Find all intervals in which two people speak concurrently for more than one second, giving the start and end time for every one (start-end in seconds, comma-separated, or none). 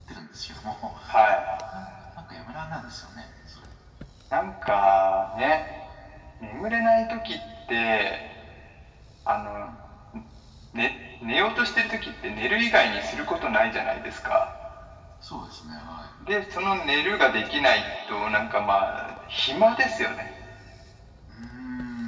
none